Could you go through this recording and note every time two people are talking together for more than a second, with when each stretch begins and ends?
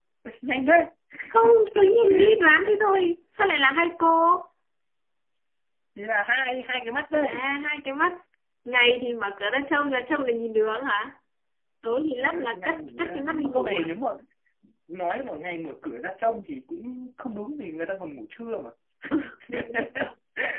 12.1-13.9

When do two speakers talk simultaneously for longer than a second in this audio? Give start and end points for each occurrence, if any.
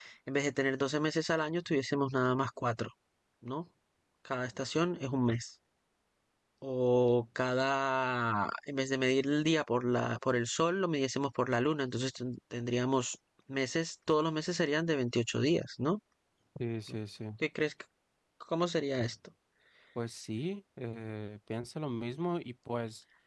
none

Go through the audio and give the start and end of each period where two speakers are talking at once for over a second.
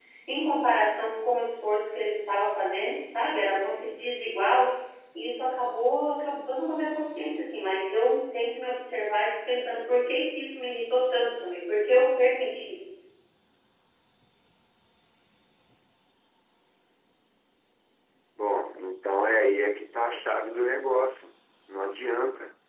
none

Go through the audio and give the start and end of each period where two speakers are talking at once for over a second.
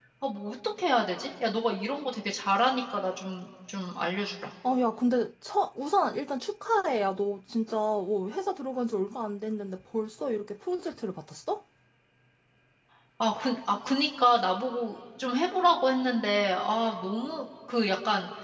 none

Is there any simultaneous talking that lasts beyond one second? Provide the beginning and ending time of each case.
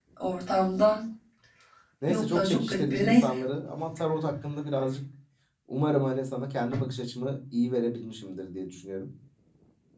2.1-3.3

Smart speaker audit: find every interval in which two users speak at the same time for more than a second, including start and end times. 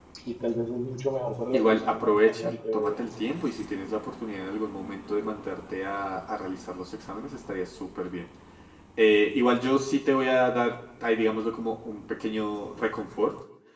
1.5-3.0

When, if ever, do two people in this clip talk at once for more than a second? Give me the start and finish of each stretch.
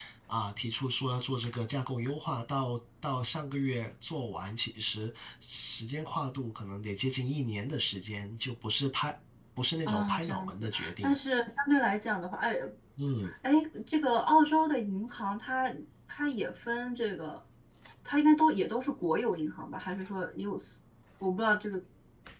9.9-11.2

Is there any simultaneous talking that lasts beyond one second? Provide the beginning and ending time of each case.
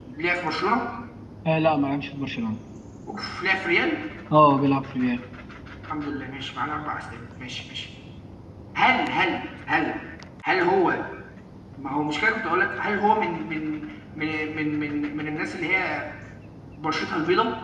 none

